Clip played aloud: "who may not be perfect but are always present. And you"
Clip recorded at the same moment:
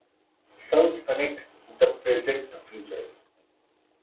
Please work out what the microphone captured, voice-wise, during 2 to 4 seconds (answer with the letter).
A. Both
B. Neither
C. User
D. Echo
C